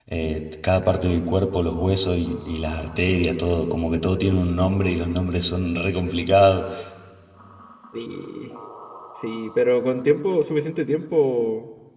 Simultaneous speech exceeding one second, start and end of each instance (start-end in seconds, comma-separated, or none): none